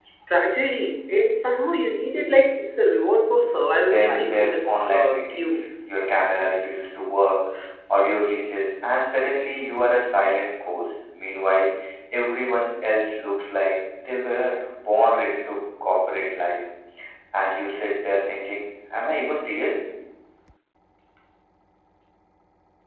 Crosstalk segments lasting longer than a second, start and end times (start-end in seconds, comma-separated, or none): 3.8-5.6